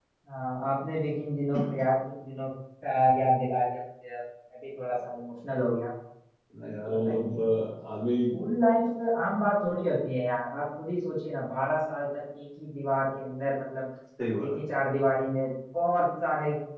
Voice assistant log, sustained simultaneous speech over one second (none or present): none